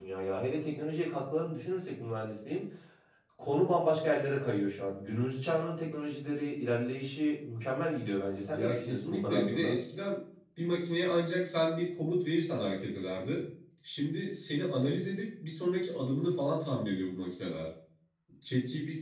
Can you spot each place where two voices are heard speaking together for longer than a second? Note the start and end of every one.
8.5-9.8

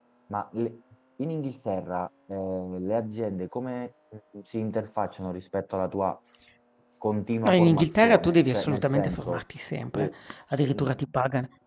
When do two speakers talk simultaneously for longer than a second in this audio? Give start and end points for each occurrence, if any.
7.4-9.4

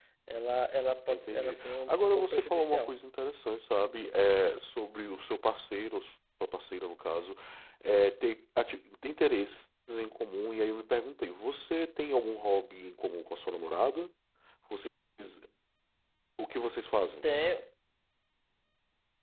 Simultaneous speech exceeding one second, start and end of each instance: 1.1-2.9

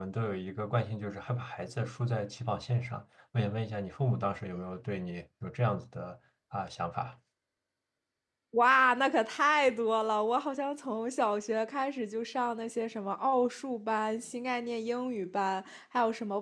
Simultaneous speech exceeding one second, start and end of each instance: none

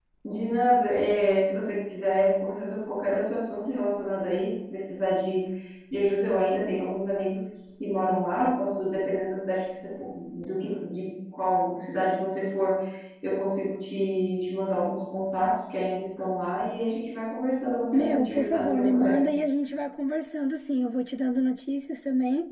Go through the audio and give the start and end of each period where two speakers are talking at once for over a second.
17.9-19.2

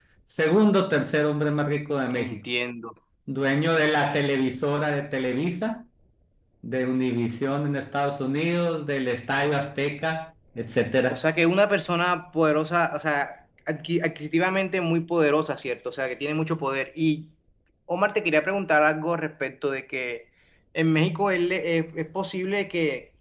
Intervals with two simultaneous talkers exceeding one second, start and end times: none

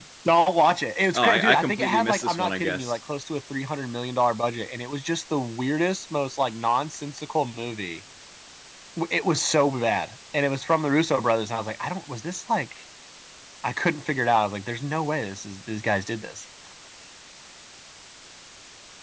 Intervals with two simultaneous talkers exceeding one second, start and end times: 1.2-3.0

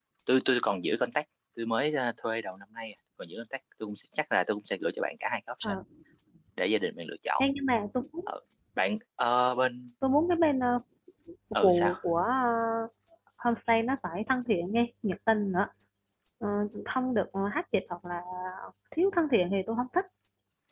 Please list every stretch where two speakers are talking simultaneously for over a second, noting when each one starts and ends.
none

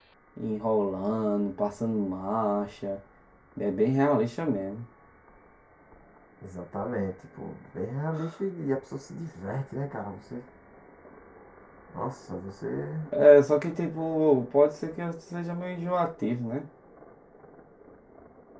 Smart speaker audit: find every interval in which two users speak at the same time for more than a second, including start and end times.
none

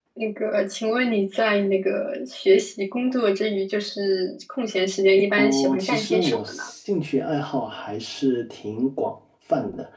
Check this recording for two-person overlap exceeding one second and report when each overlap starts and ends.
5.4-6.6

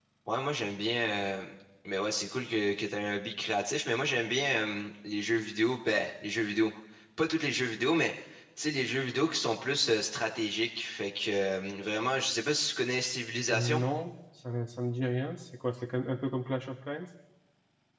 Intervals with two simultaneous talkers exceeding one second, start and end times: none

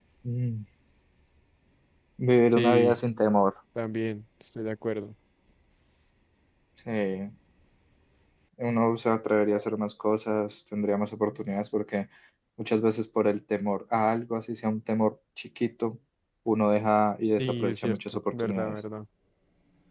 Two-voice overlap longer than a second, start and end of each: 17.4-18.8

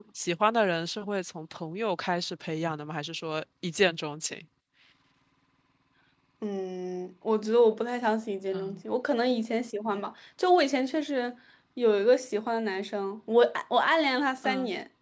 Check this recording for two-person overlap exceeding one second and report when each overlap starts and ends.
none

